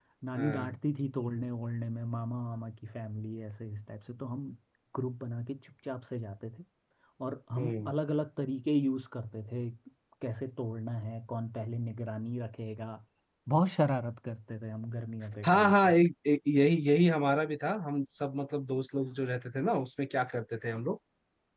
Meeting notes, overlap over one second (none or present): none